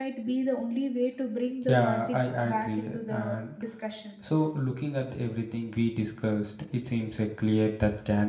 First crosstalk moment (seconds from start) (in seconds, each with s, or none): 1.7 s